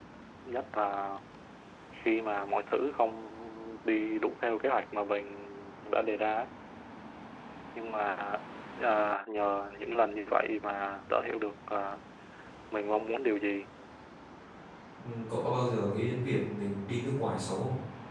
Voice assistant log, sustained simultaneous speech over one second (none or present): none